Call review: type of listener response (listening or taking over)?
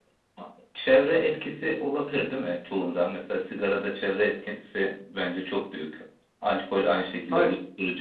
listening